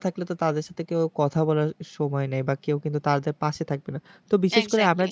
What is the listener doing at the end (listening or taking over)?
listening